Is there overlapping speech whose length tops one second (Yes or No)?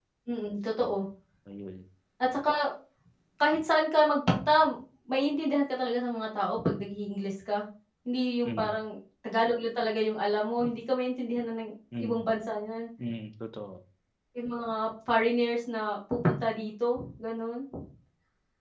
No